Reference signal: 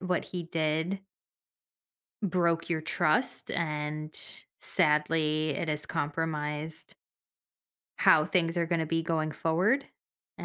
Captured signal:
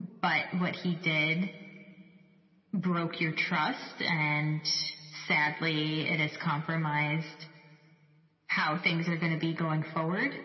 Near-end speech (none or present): none